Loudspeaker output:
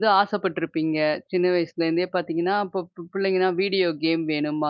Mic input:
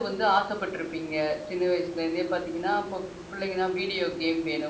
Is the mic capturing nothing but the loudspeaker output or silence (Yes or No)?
Yes